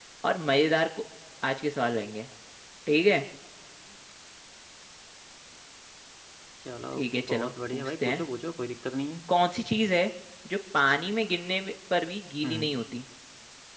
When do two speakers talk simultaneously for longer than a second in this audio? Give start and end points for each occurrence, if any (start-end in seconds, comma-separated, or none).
7.0-8.2